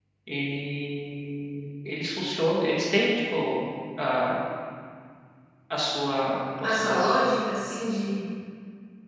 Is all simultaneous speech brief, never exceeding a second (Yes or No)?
Yes